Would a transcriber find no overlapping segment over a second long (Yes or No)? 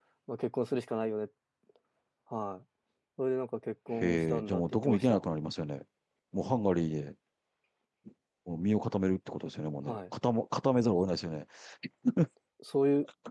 No